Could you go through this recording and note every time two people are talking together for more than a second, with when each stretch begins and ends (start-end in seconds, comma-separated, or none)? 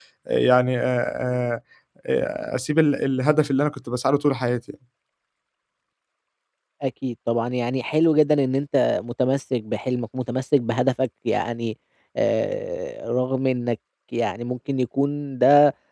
none